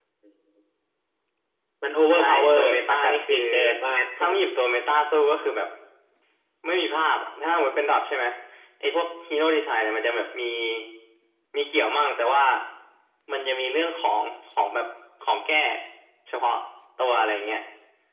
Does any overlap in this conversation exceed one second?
Yes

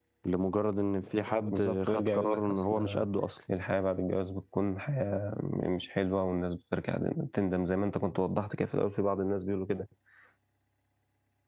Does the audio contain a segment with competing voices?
Yes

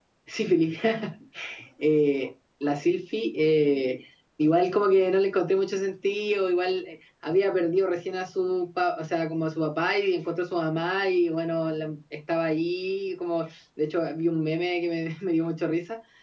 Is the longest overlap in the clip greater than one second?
No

